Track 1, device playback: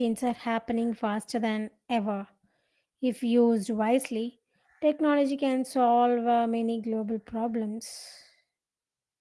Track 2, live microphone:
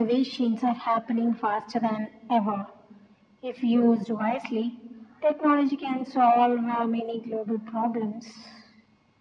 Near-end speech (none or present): none